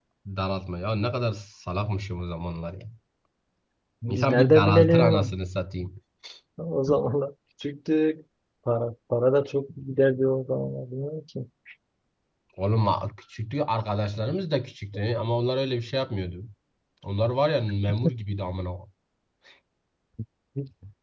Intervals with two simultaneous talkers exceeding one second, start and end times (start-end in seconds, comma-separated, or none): 4.1-5.3